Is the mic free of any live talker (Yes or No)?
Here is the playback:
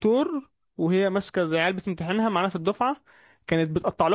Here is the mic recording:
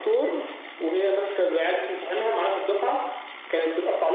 Yes